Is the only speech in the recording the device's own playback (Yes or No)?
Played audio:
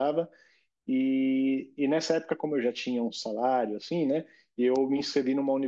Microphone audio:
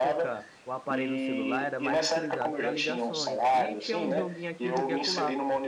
No